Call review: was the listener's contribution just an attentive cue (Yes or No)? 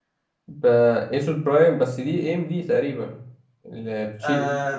No